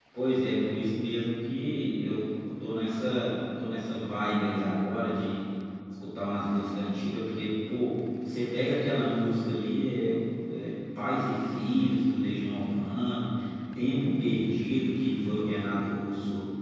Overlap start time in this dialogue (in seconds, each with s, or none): none